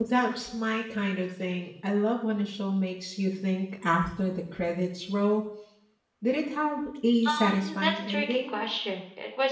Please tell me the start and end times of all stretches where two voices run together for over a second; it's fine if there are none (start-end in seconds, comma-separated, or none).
7.2-8.5